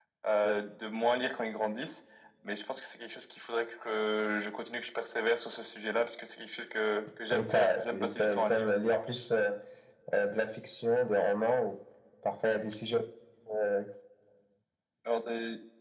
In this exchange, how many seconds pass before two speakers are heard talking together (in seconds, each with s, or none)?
7.3 s